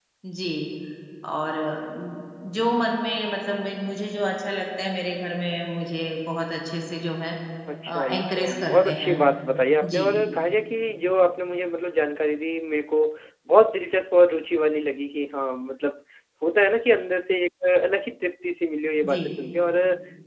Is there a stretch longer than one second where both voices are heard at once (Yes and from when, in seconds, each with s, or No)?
Yes, from 7.9 s